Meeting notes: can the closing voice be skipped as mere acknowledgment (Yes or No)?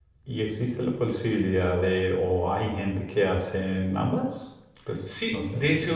No